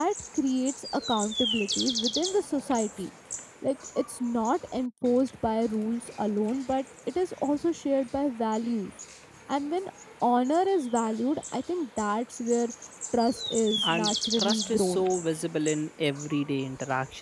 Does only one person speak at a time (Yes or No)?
No